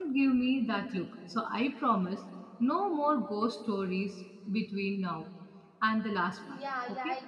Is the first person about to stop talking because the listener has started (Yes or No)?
Yes